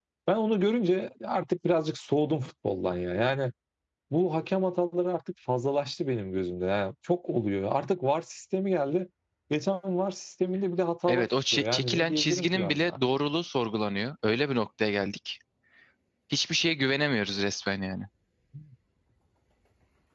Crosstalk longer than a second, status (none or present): present